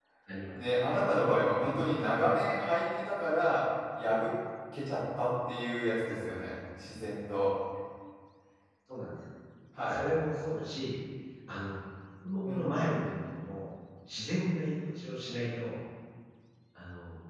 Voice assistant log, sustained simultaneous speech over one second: none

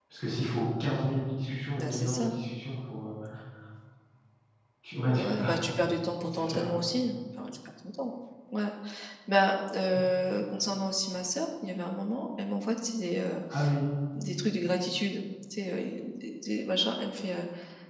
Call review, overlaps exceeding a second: none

